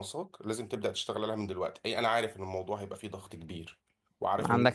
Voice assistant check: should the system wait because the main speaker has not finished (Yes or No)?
No